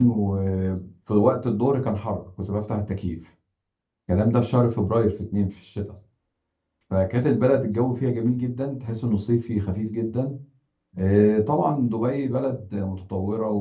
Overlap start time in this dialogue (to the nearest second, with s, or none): none